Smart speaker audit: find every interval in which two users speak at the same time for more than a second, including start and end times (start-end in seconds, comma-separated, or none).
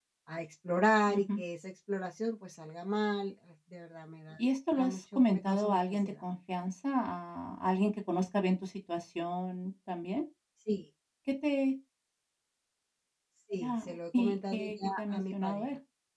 4.8-6.1, 13.6-15.7